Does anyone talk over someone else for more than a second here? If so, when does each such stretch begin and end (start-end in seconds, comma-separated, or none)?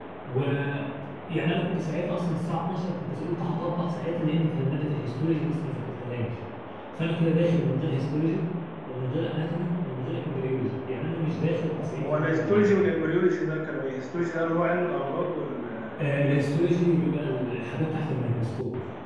11.6-12.9